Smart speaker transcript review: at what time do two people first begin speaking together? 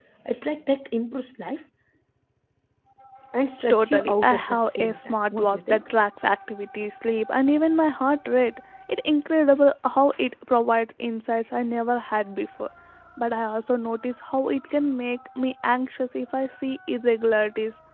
3.7 s

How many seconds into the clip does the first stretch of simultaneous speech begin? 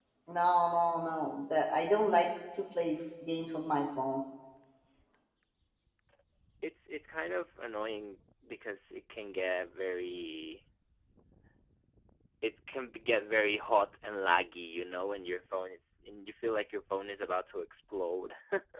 none

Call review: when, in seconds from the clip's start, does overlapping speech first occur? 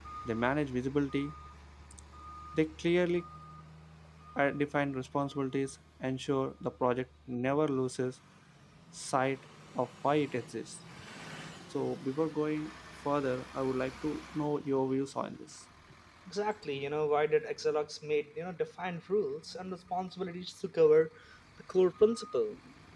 none

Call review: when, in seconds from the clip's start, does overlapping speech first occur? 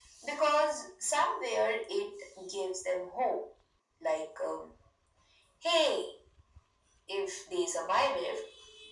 none

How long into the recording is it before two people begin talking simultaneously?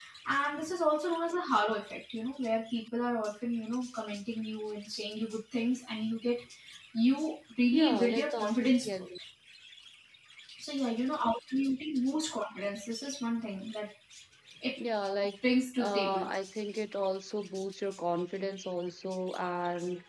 7.7 s

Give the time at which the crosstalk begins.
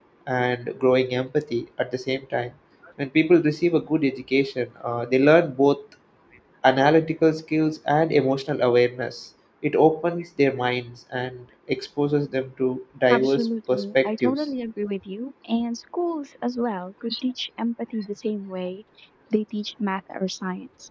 13.1 s

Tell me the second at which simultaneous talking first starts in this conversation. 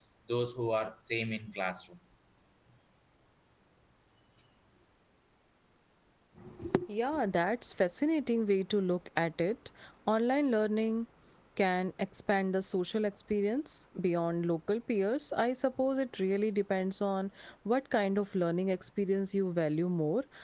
none

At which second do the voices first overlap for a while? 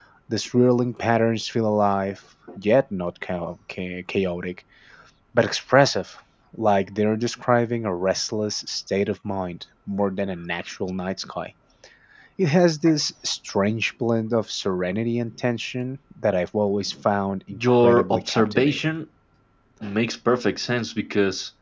17.5 s

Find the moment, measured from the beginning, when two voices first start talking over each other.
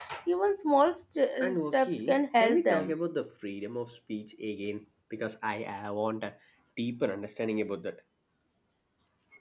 1.4 s

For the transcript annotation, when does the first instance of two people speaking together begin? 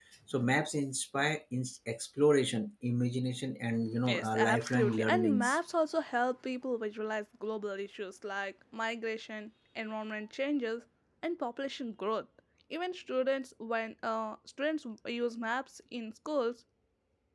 4.1 s

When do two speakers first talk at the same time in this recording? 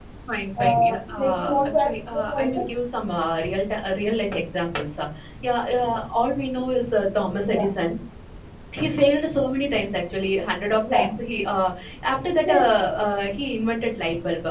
0.6 s

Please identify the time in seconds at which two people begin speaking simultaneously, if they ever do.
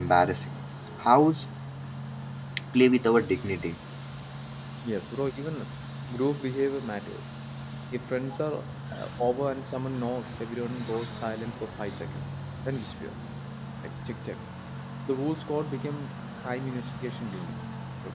none

